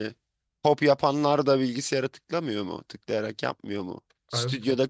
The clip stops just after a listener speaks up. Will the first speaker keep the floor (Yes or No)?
Yes